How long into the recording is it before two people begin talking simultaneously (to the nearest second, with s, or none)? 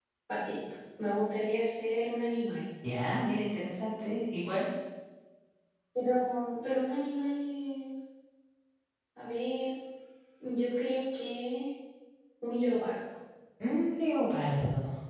none